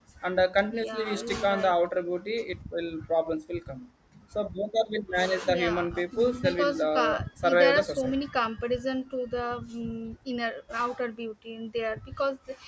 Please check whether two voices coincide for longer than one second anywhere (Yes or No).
Yes